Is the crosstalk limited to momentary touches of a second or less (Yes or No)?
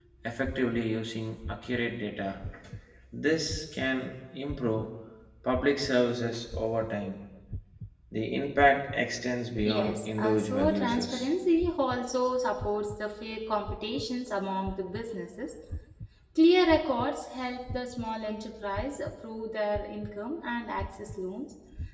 No